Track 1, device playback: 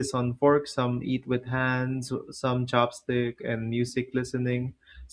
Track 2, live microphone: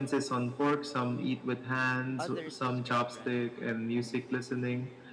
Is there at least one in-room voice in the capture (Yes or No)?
Yes